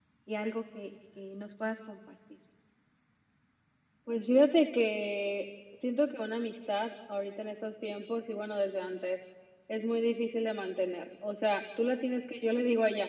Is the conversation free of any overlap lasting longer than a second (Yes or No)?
Yes